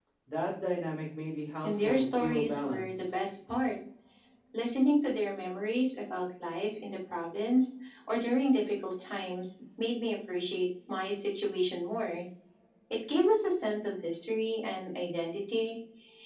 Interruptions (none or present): present